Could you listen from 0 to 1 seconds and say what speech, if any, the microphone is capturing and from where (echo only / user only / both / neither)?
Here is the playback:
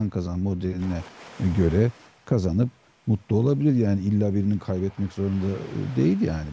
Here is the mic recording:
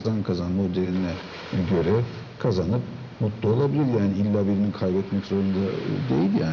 echo only